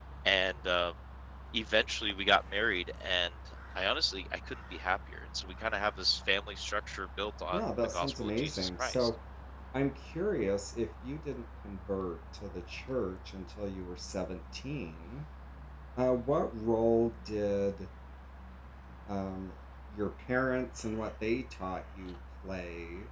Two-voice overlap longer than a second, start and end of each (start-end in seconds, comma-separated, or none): 7.5-9.1